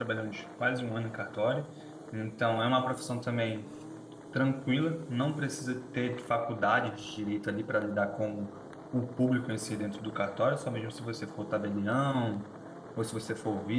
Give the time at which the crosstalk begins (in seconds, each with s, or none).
none